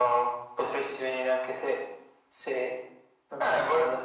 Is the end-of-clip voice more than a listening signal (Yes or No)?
Yes